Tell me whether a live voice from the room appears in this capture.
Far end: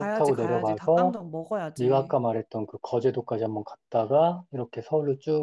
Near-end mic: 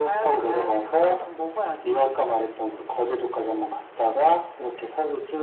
No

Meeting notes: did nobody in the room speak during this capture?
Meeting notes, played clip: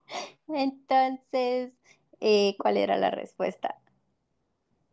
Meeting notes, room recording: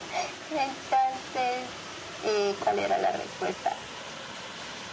Yes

